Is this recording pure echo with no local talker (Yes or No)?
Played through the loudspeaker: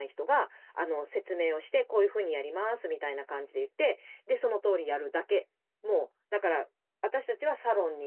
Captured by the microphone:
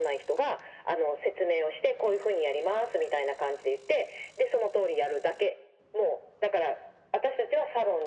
Yes